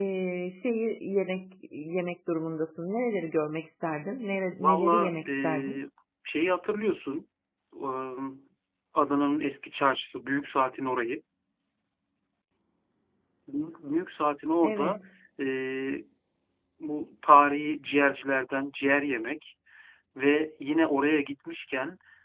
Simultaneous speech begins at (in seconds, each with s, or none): 4.6 s